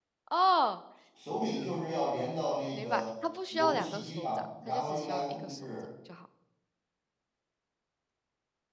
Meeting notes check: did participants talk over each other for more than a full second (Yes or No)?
Yes